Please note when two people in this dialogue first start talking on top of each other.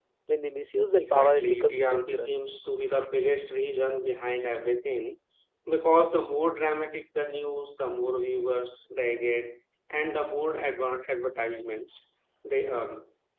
1.0 s

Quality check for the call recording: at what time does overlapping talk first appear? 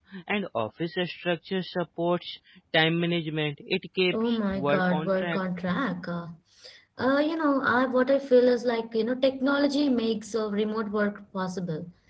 4.1 s

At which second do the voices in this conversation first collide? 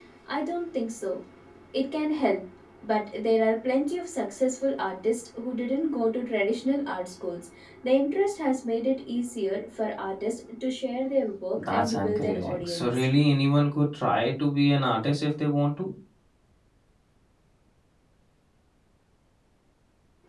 11.6 s

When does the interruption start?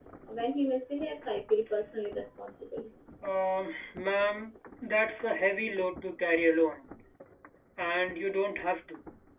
none

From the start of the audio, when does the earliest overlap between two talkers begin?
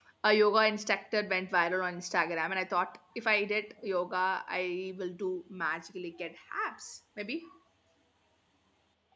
none

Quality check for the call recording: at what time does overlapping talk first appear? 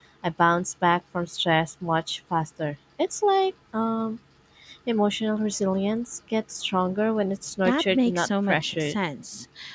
7.7 s

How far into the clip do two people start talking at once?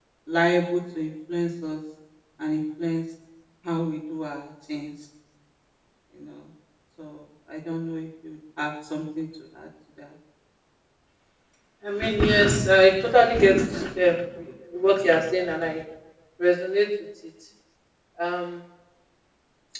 none

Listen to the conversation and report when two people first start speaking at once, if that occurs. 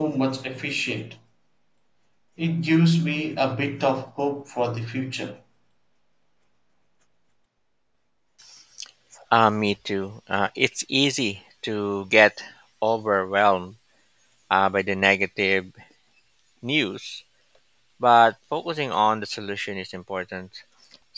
none

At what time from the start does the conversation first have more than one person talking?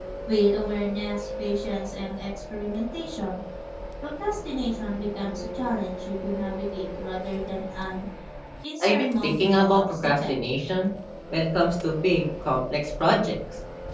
8.8 s

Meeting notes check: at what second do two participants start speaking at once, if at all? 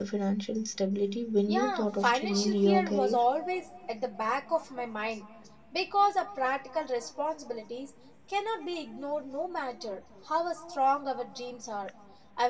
1.5 s

